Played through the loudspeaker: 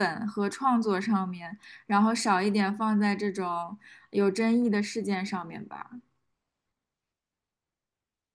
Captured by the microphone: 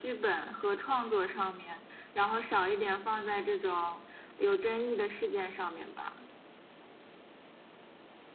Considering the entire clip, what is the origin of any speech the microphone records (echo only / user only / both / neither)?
echo only